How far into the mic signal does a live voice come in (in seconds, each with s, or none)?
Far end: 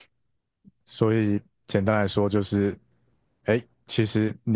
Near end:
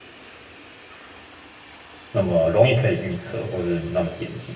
2.1 s